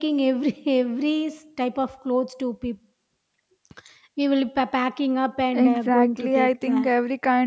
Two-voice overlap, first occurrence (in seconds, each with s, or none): 5.5 s